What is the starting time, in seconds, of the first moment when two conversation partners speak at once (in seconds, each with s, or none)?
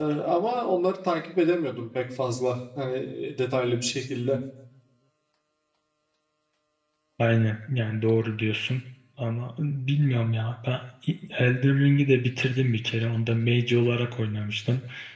none